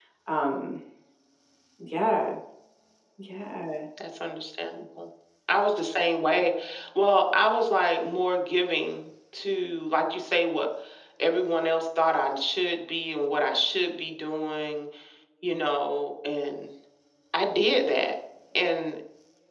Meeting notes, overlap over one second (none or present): none